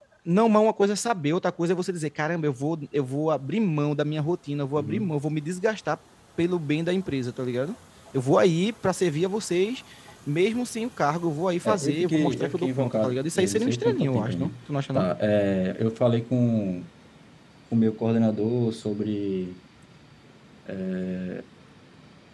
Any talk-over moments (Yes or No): Yes